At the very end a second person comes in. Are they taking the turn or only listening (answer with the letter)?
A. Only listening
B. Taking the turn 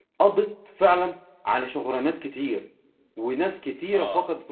A